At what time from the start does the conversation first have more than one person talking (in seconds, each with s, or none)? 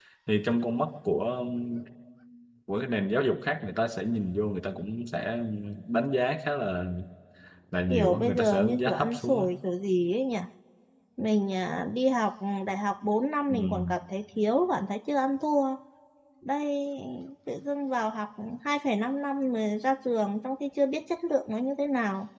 7.9 s